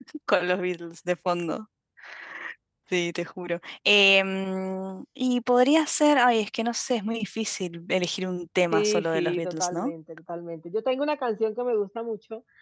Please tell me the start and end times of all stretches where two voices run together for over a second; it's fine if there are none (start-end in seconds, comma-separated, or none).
8.7-9.9